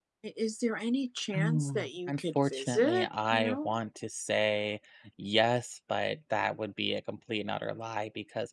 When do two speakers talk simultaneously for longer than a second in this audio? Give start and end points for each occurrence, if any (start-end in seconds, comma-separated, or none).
1.4-3.8